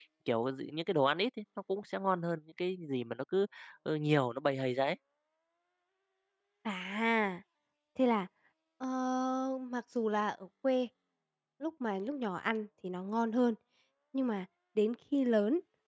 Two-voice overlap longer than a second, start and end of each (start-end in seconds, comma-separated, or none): none